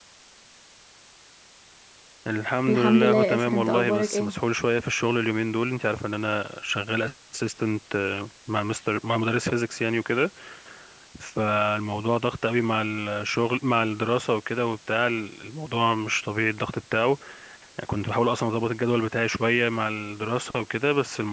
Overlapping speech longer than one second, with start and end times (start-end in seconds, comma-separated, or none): 2.7-4.3